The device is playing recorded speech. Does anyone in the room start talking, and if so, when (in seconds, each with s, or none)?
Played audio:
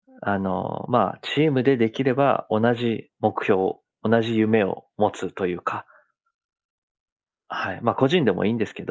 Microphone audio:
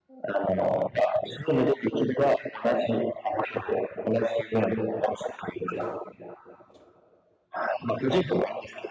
none